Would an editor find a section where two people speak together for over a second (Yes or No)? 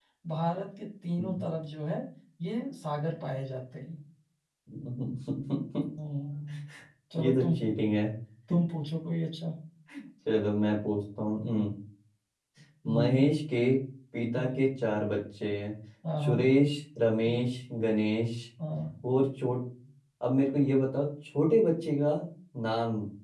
No